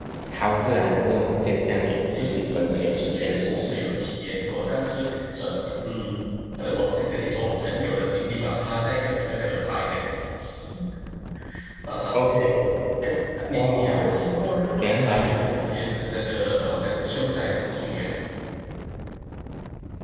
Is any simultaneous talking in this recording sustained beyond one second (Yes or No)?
Yes